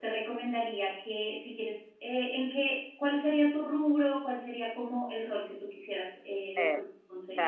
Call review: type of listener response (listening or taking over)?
taking over